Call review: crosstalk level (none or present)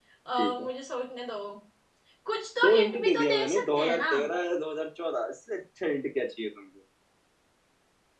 present